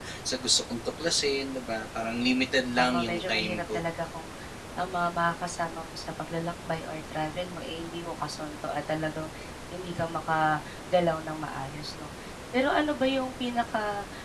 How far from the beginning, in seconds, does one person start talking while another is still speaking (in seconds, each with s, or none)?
2.5 s